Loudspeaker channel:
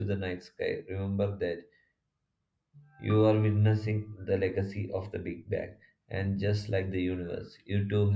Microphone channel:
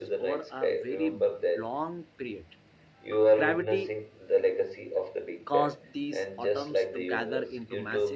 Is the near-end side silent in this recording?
No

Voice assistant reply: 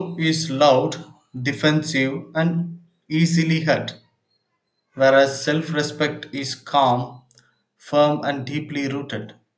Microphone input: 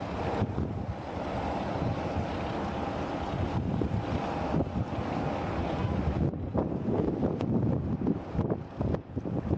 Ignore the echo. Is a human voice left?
No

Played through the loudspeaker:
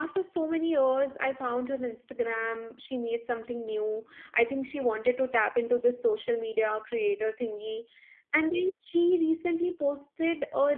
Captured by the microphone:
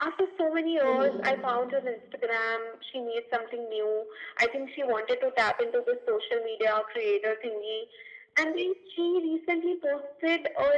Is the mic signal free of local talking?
No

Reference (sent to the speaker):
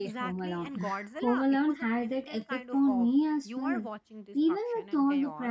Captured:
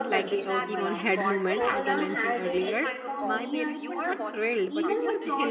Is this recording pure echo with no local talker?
No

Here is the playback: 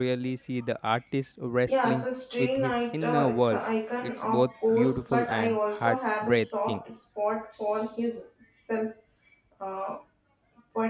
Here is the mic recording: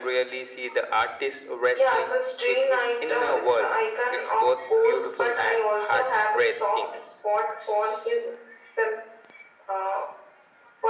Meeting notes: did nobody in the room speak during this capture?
Yes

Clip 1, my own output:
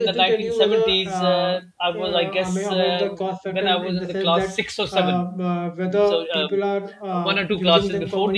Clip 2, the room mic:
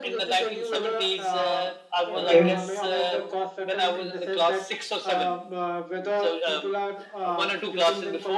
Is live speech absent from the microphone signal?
No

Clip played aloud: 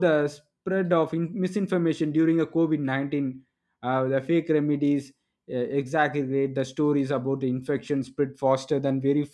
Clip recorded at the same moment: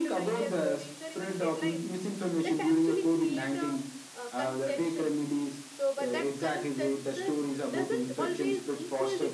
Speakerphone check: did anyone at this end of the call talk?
Yes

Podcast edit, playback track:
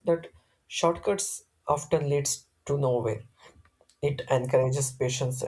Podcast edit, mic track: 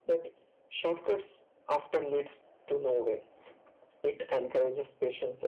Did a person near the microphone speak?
No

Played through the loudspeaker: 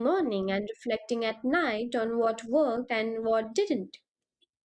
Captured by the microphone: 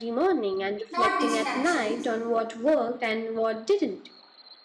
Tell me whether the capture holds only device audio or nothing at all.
No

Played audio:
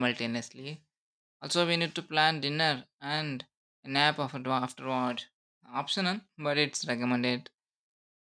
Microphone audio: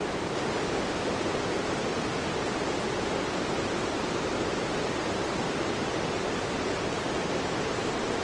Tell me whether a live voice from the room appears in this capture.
No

